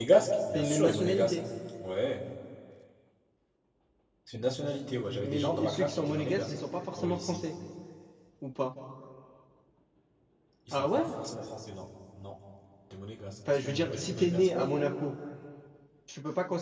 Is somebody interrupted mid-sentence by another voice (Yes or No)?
Yes